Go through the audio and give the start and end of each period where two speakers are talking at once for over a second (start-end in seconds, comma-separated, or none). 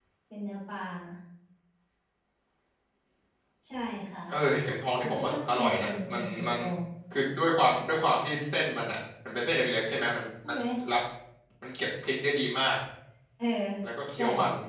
5.0-6.6